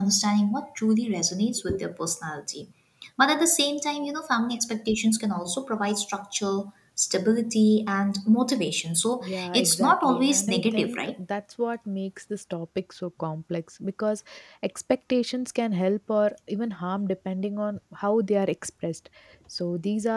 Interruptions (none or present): present